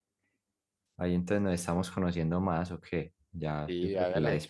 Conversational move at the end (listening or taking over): taking over